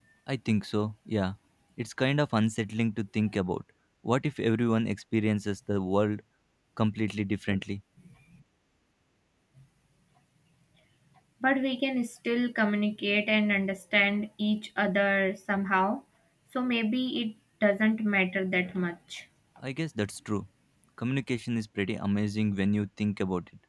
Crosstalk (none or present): none